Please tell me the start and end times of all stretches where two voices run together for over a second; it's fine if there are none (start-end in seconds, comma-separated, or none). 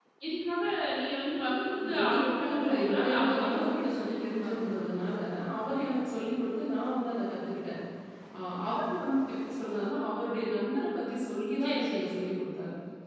1.8-4.8